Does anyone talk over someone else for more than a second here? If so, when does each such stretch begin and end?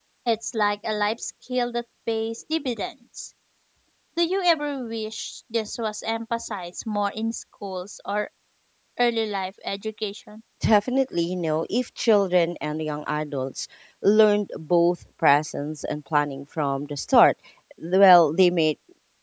none

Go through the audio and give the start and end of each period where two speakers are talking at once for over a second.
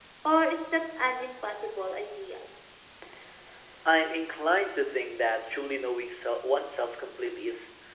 none

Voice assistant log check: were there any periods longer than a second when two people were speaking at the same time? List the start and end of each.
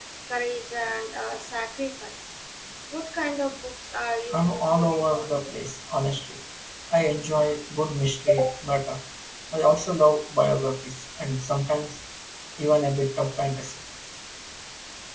4.3-5.6

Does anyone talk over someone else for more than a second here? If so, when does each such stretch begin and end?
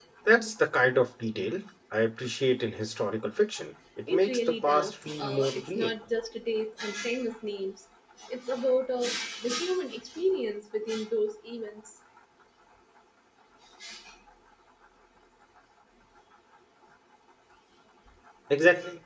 4.1-5.9

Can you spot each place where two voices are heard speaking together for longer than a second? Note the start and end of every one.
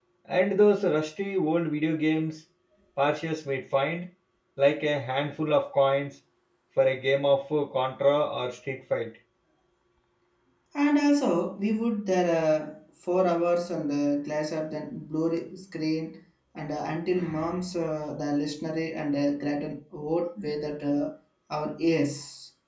none

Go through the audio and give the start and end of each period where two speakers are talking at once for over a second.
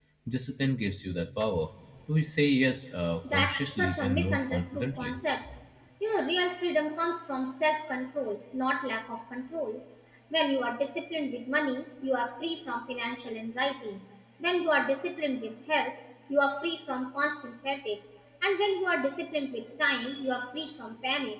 3.2-5.2

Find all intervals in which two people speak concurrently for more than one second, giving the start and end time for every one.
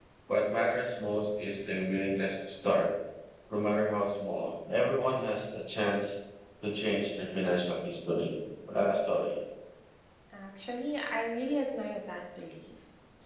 none

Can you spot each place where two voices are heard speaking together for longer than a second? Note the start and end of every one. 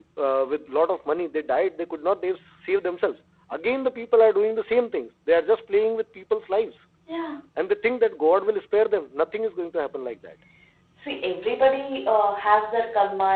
none

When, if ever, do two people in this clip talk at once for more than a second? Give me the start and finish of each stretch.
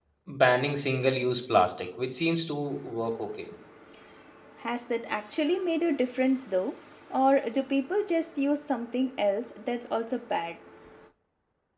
none

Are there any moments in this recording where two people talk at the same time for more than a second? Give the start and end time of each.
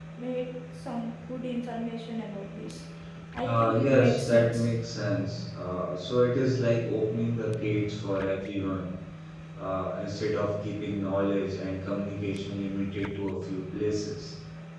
3.4-4.6

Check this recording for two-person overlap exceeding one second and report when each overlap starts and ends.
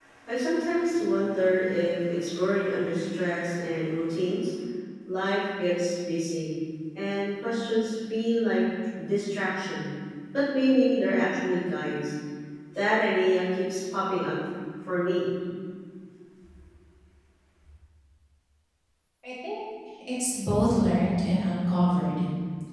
none

